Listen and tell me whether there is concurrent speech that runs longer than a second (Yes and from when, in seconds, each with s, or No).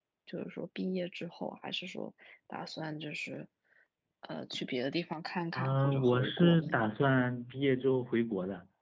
Yes, from 5.5 s